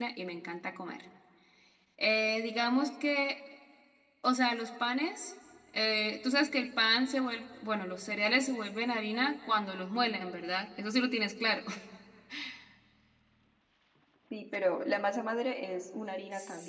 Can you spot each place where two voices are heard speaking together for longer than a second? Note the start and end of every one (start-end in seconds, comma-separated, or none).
none